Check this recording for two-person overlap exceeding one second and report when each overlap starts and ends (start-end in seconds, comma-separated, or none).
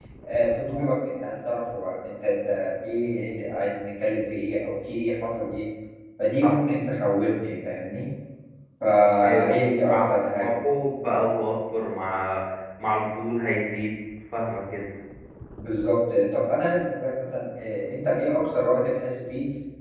9.2-10.5